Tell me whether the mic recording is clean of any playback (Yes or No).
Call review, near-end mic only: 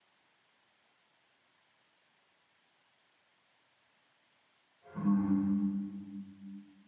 Yes